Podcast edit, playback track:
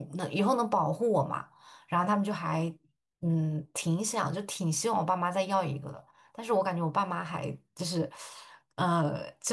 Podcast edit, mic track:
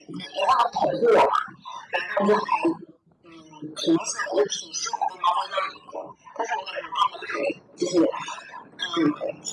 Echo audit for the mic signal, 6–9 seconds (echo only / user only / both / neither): echo only